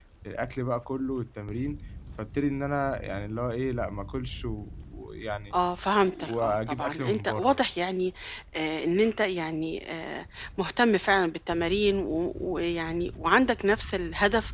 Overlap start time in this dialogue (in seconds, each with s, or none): 6.0 s